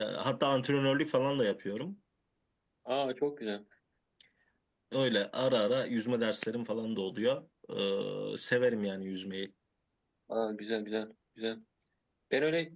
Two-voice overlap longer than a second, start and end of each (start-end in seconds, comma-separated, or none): none